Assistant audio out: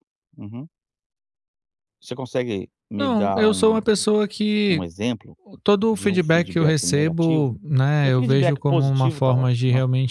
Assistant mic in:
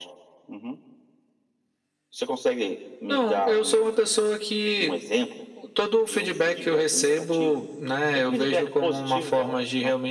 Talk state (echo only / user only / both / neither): echo only